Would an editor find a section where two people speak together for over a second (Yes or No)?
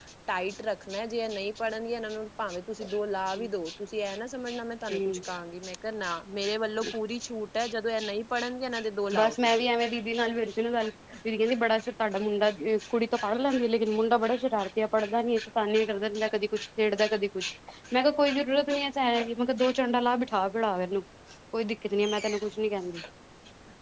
No